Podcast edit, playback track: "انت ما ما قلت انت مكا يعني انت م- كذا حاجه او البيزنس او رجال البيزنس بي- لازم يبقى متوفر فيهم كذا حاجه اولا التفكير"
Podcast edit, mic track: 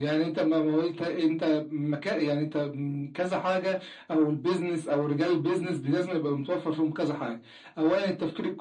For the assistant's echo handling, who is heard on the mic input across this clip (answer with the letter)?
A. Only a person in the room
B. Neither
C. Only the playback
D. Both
C